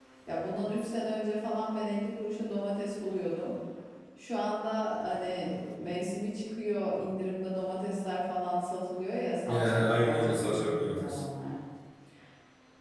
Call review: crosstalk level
present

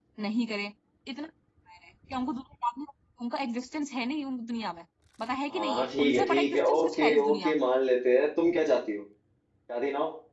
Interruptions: present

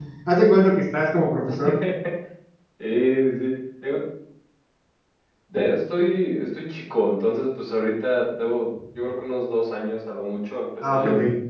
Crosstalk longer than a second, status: none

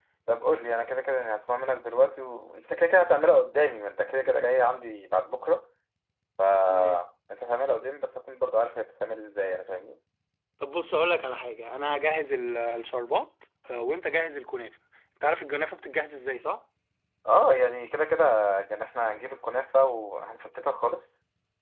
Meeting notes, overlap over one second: none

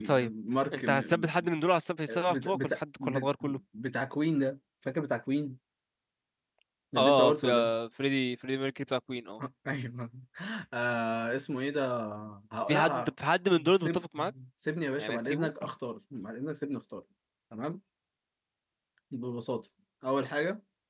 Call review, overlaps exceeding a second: present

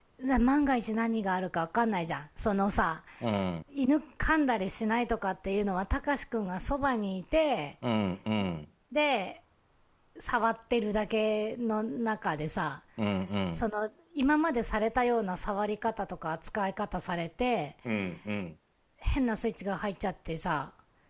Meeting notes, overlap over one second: none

